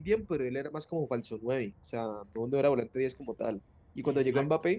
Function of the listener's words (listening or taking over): listening